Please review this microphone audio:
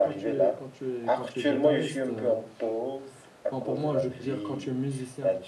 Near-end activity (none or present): present